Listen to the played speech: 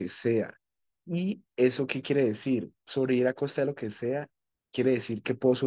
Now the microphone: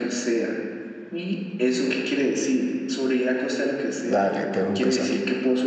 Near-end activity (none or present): present